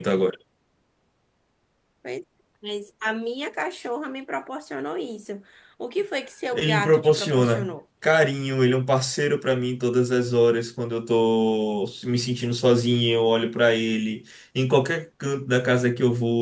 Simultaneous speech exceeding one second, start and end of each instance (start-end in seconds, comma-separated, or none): 6.5-7.7